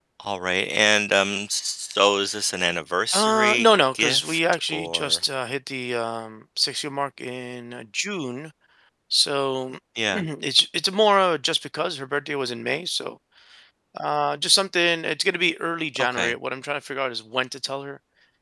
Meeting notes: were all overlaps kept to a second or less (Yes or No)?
No